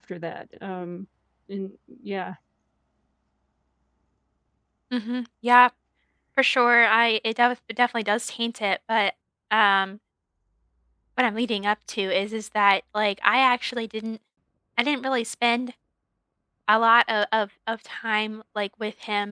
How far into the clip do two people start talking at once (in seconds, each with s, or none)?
none